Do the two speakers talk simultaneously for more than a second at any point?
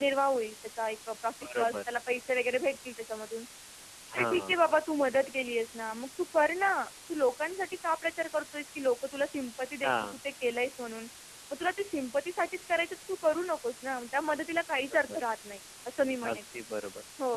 No

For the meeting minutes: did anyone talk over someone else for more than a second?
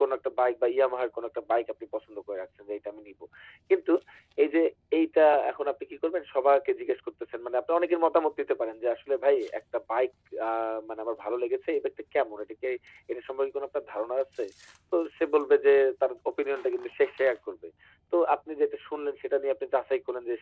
No

